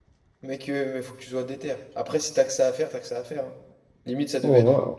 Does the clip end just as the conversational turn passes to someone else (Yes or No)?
Yes